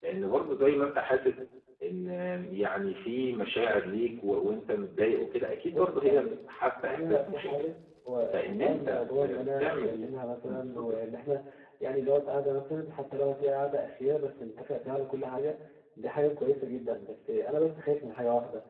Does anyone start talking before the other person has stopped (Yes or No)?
Yes